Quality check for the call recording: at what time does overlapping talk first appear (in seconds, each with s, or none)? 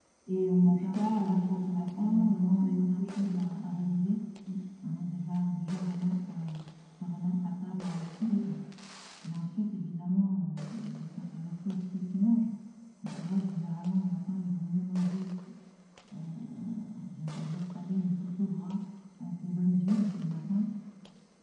0.6 s